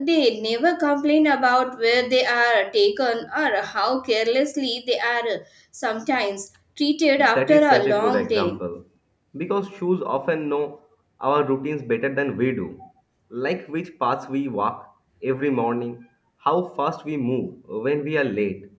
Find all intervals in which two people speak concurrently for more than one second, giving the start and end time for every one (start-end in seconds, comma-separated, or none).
7.2-8.6